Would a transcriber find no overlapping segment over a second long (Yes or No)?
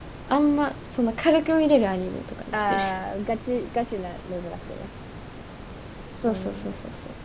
Yes